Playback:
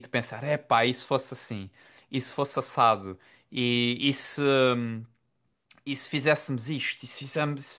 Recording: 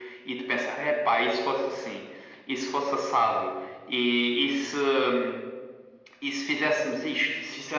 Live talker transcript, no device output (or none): none